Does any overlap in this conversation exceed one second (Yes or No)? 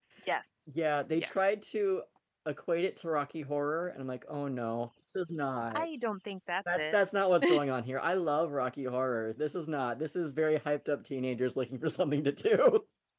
No